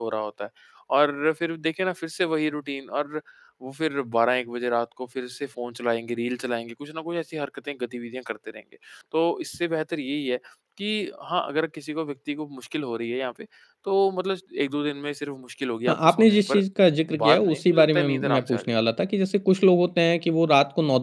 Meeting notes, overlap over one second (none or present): present